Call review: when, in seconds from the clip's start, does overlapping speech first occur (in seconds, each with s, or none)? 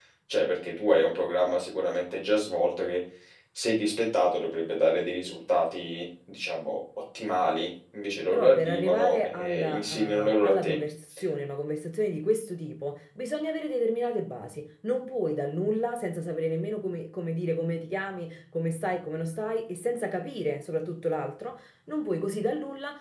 8.3 s